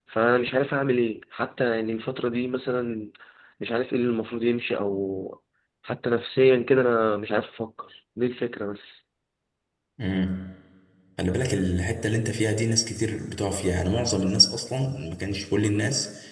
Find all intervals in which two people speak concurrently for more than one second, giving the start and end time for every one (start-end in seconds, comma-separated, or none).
none